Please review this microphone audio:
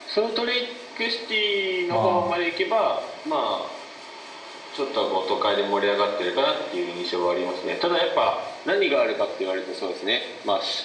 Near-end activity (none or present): present